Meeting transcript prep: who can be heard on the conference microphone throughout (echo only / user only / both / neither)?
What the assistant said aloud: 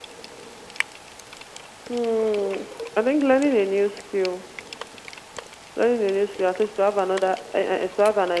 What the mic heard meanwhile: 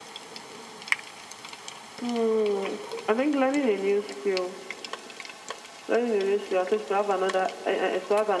echo only